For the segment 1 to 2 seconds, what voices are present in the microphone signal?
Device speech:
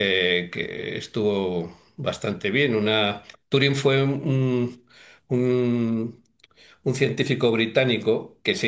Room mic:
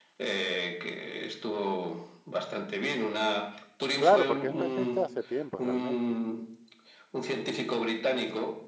echo only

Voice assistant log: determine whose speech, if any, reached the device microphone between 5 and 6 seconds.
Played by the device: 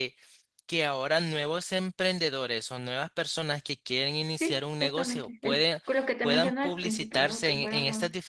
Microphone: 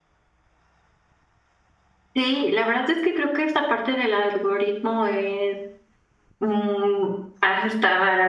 user only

